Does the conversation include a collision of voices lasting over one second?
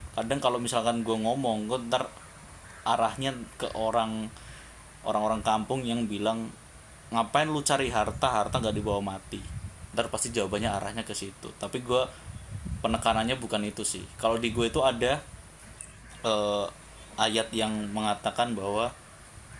No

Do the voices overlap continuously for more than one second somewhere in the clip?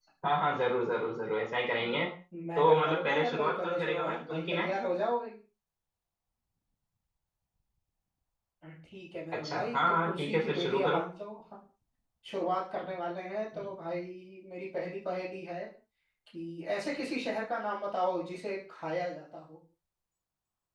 Yes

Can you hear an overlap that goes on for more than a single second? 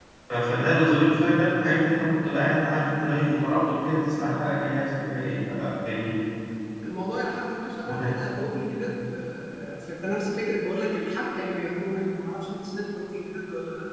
No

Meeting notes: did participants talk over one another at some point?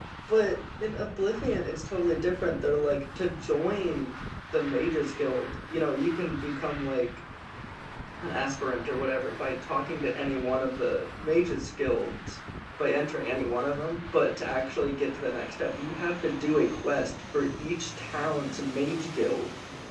No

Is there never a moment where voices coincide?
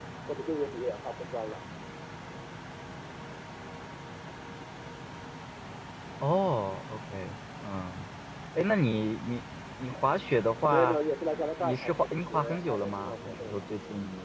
No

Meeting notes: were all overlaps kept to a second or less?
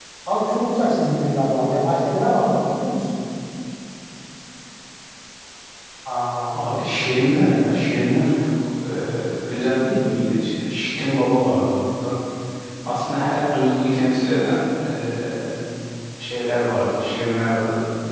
Yes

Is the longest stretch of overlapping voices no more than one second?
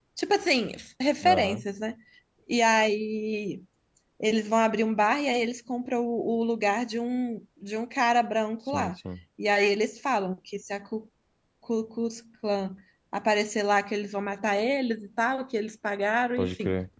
Yes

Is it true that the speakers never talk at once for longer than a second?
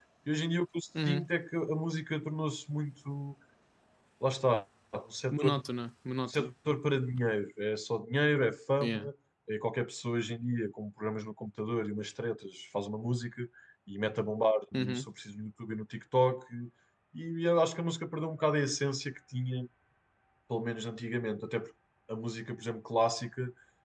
Yes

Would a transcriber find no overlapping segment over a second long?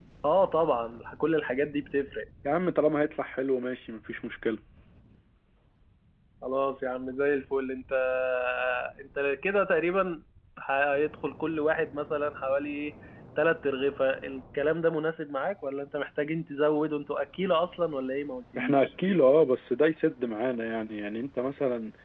Yes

